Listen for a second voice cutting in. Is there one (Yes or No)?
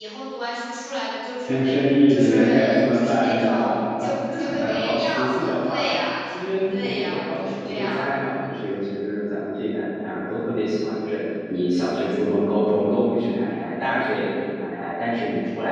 Yes